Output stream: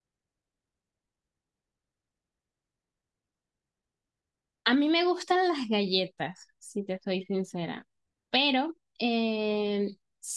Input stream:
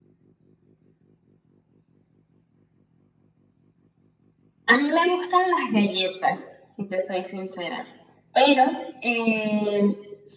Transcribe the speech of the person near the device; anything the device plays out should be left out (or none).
none